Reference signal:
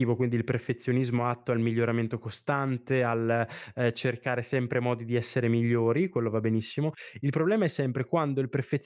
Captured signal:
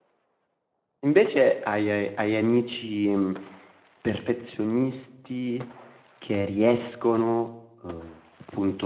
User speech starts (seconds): 1.1 s

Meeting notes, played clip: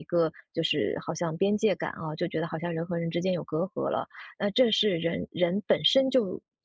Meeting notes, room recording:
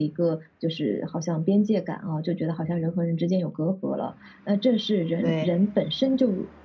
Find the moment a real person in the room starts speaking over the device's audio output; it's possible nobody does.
5.2 s

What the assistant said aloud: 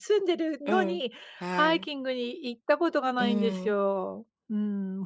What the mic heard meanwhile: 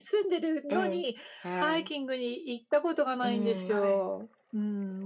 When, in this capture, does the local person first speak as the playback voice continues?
3.7 s

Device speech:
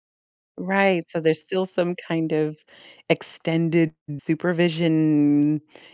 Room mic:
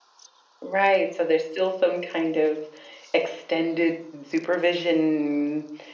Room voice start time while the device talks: none

